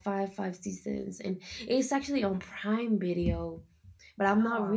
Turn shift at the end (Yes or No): No